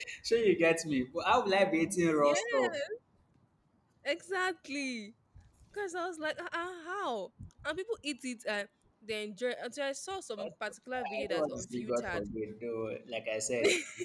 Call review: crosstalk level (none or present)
present